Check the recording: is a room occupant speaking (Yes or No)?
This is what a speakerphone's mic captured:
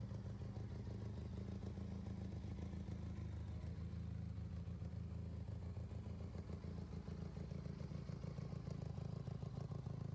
No